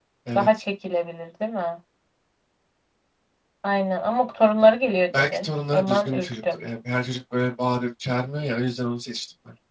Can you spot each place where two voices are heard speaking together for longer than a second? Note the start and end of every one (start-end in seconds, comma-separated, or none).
5.2-6.6